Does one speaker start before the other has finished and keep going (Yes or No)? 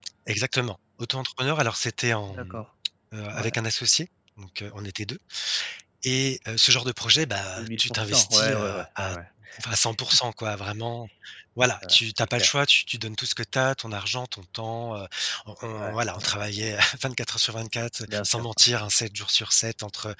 Yes